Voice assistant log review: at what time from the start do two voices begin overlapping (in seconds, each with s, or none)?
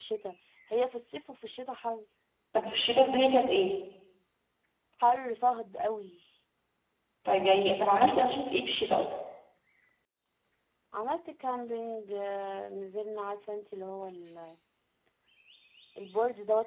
none